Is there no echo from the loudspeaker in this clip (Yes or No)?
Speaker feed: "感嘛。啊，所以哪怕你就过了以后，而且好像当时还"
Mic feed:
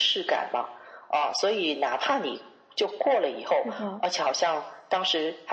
No